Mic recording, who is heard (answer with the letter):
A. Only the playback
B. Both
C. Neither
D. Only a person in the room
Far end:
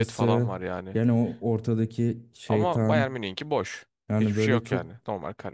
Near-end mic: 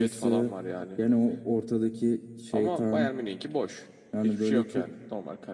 A